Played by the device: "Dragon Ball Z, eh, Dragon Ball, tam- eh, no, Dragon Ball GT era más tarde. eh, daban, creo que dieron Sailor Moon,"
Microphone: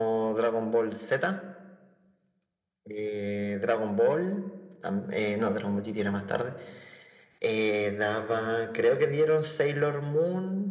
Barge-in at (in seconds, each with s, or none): none